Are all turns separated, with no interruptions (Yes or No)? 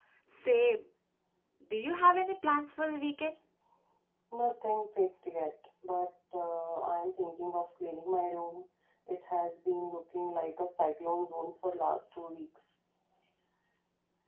Yes